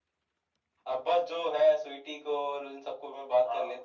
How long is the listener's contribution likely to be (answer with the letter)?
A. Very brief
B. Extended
B